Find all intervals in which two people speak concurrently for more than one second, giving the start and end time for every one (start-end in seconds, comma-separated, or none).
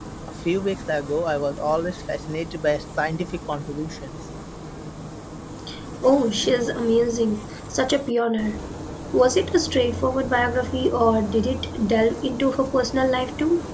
none